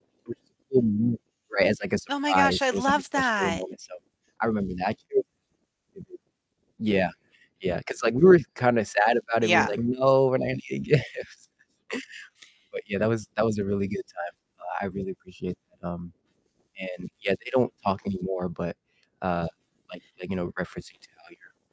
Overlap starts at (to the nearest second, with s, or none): 2 s